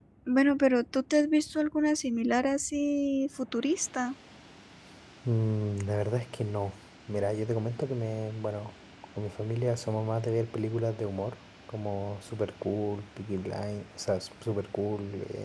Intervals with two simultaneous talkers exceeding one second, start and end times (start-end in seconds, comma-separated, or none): none